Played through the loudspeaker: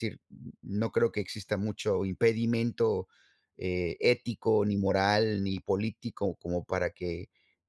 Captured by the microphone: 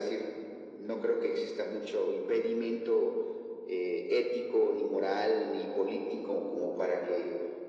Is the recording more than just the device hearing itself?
No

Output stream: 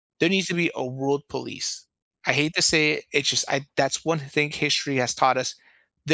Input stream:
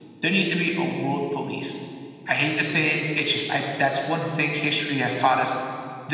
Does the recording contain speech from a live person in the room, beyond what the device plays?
No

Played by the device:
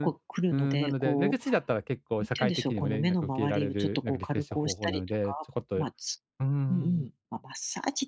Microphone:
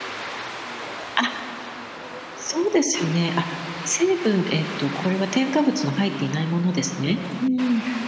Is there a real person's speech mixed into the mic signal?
Yes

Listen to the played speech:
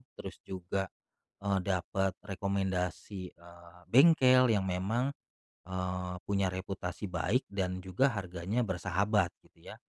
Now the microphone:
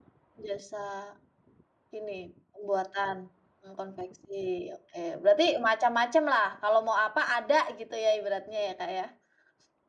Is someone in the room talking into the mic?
Yes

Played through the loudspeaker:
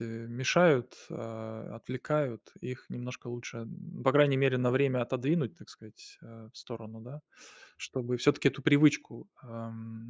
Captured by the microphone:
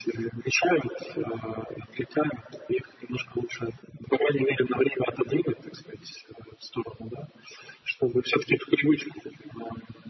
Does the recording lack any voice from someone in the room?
Yes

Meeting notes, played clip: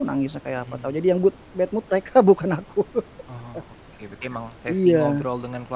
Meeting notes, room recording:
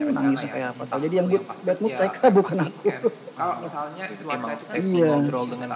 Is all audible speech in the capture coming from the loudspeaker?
No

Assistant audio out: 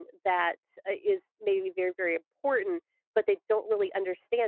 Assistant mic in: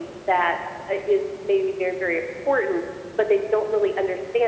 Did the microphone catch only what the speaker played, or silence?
Yes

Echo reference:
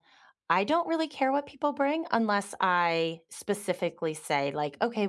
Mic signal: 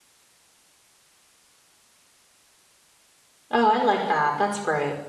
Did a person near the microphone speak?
Yes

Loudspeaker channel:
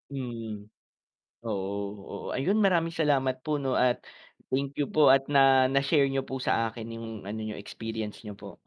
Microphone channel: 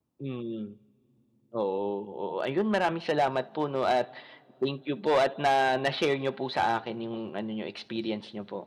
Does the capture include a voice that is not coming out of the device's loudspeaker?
No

